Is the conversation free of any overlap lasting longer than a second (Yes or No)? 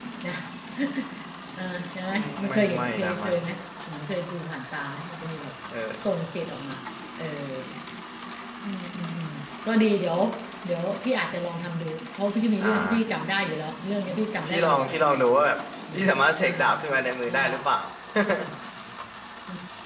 No